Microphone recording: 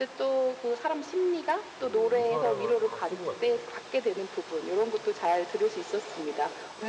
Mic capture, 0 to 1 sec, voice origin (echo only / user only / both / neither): echo only